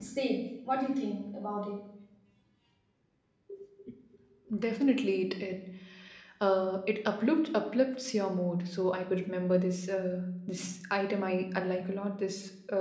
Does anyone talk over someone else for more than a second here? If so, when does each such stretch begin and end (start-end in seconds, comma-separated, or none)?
none